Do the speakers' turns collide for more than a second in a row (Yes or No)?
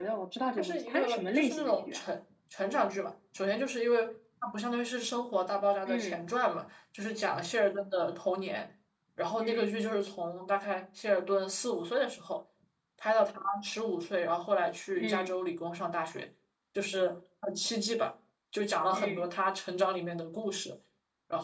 Yes